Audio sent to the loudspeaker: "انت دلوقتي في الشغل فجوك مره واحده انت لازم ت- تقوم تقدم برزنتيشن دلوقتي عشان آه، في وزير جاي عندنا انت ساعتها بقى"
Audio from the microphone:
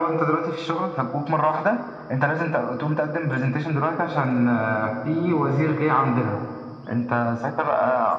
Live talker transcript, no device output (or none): none